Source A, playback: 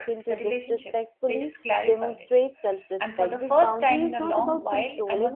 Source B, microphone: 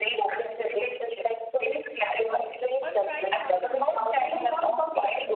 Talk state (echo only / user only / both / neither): both